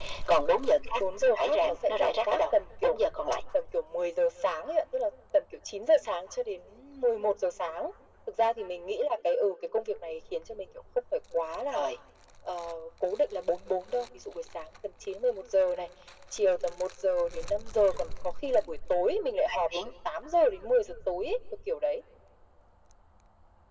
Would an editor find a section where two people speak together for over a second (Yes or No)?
Yes